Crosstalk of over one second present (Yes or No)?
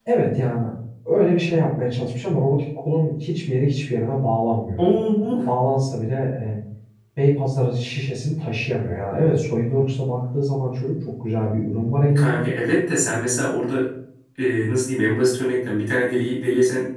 No